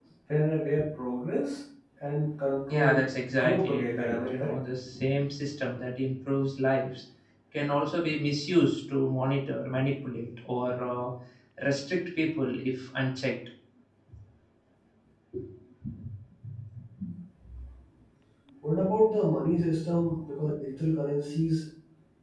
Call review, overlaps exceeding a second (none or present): present